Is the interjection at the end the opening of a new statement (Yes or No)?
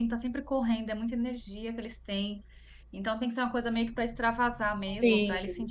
No